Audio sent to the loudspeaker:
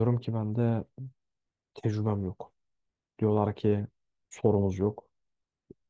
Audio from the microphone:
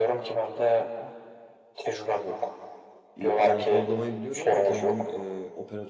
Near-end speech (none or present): present